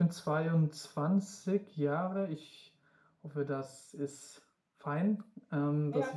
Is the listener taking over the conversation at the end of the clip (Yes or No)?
Yes